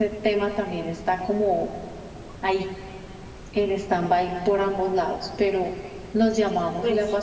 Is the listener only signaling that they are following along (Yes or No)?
Yes